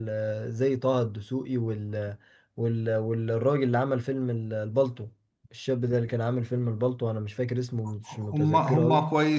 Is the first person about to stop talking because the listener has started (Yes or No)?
Yes